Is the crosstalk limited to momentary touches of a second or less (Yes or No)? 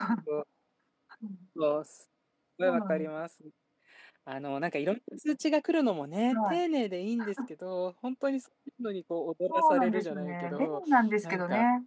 No